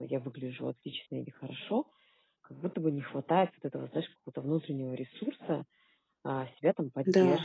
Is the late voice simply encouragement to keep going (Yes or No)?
Yes